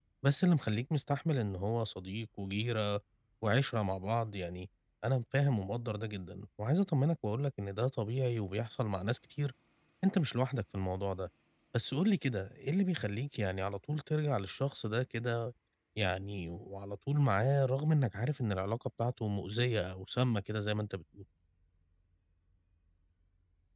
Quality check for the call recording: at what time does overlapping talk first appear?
none

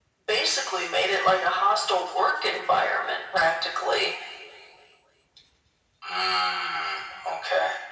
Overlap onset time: none

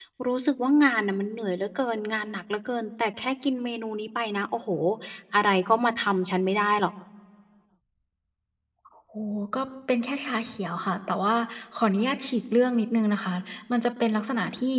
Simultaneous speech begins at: none

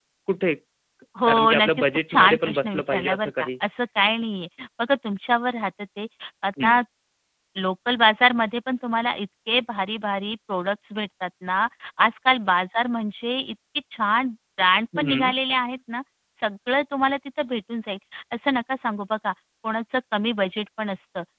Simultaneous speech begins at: 1.2 s

